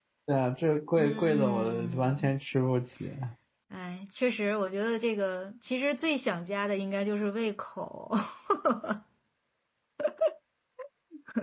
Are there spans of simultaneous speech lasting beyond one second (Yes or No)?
Yes